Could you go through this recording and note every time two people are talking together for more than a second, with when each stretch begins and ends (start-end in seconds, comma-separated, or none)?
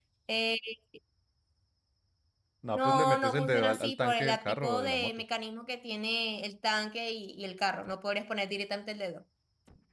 2.7-5.1